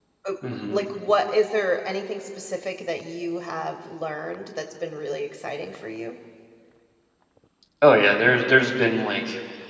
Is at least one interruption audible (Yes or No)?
No